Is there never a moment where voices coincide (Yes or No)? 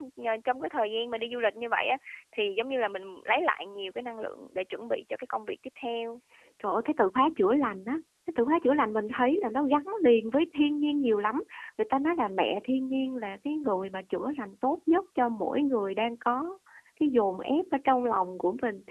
Yes